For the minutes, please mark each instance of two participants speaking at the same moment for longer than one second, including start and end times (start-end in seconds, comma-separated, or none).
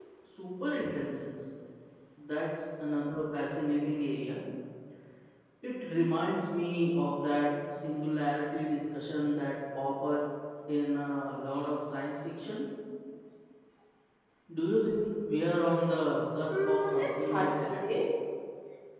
16.5-17.8